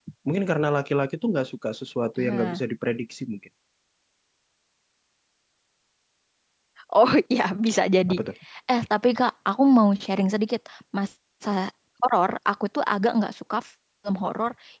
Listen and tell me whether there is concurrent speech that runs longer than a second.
No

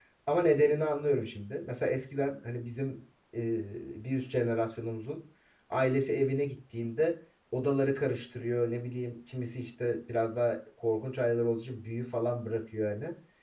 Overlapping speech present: No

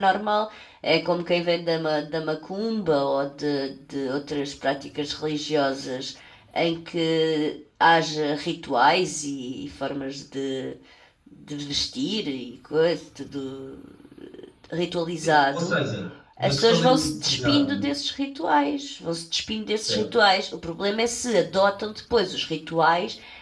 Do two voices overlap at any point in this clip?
Yes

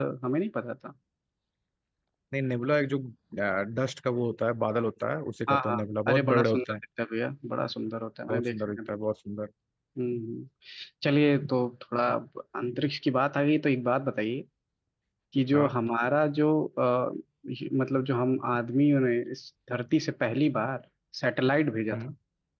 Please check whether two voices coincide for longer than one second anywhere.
Yes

